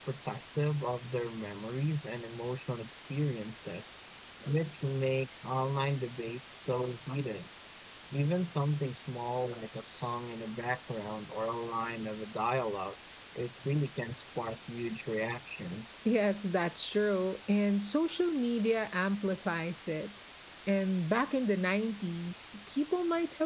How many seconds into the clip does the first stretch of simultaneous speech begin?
none

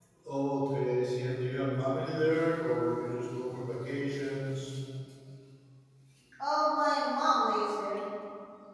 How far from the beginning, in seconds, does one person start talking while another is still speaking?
none

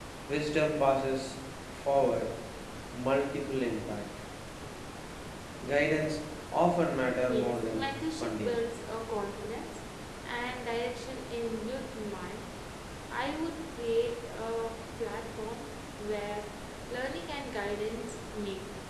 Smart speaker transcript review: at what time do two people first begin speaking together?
7 s

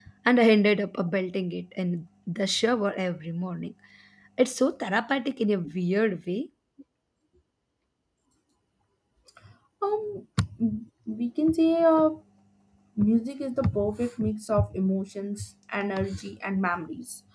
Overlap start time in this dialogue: none

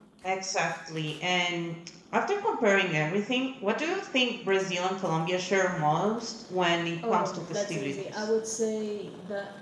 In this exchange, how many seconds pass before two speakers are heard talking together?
7 s

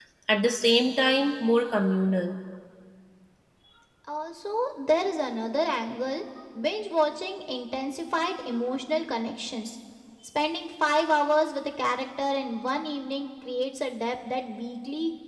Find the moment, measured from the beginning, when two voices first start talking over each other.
none

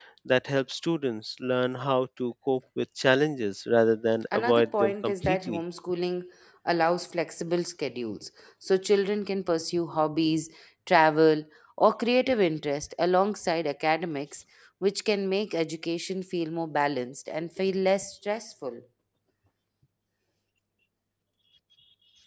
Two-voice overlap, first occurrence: 4 s

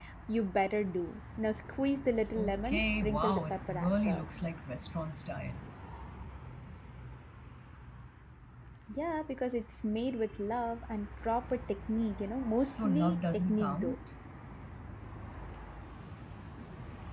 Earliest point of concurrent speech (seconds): 2 s

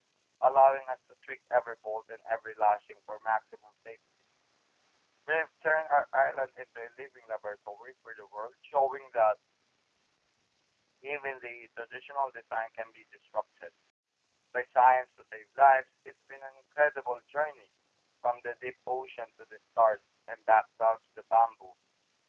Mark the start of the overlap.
none

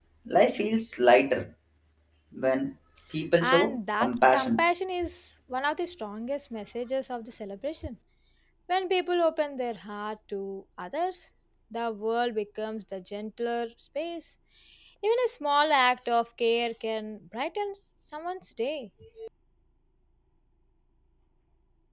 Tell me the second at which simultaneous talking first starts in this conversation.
3 s

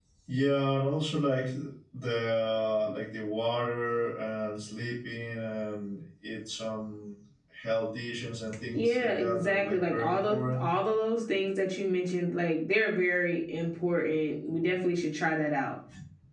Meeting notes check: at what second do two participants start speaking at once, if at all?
9 s

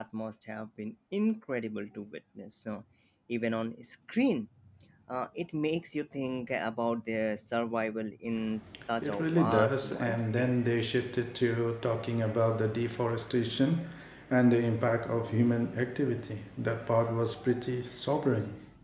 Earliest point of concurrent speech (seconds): 9 s

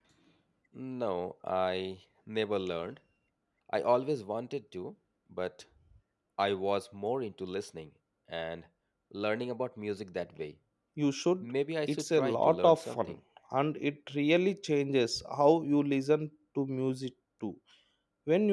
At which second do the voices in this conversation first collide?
12 s

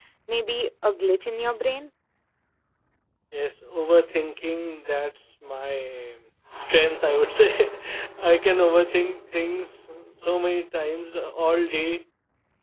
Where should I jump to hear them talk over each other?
none

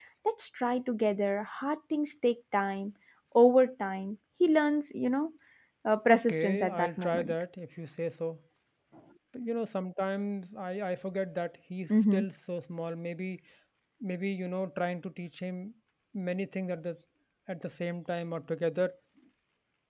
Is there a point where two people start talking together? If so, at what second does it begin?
6 s

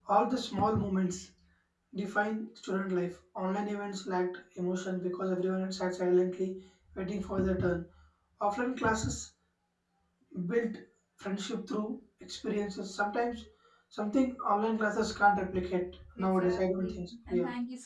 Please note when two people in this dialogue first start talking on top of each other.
16 s

